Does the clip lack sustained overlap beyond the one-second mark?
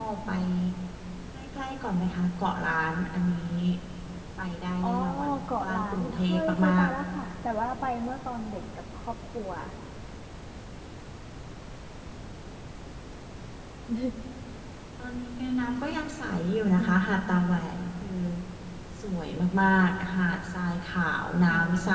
No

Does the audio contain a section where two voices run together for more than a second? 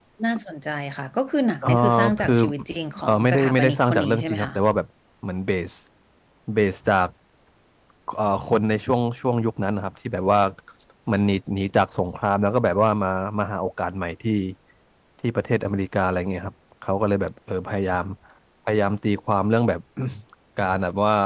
Yes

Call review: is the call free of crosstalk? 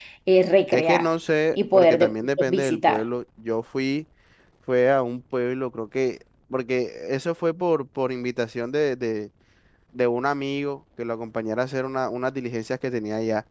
No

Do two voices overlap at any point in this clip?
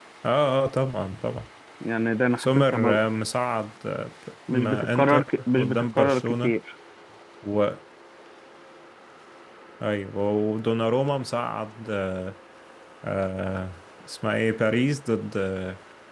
Yes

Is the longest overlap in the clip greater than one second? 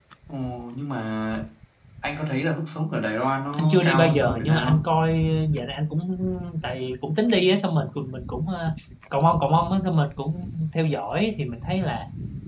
Yes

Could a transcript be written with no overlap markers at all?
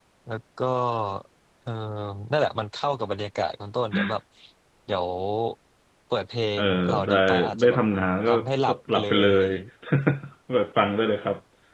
No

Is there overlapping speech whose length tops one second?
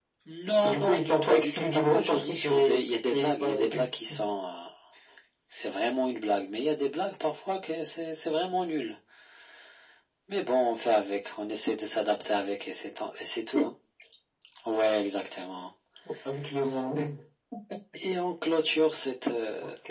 Yes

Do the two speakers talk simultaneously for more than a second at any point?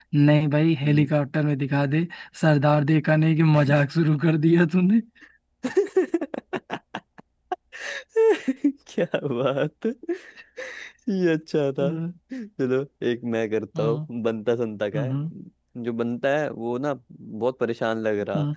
No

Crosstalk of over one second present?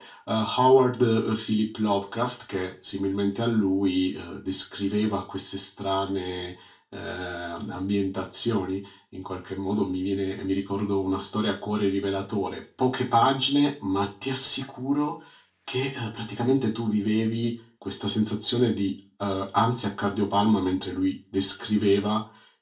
No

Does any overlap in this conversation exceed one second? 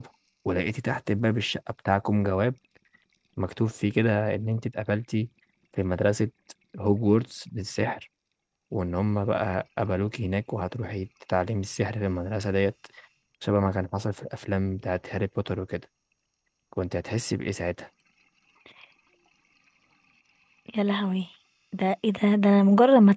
No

